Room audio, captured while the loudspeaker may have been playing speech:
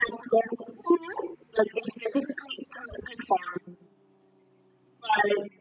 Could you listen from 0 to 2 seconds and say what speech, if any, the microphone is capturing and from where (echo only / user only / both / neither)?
echo only